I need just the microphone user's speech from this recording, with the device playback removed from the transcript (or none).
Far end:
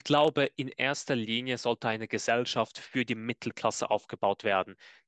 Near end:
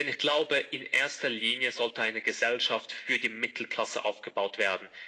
none